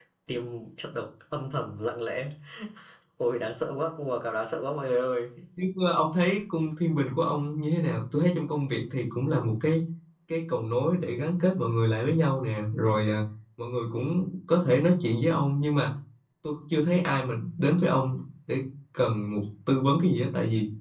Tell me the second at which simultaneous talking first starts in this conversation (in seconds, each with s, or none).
none